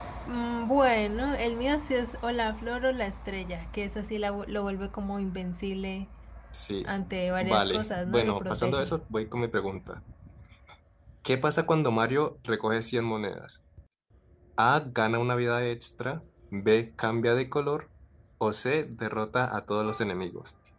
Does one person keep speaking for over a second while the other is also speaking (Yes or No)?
Yes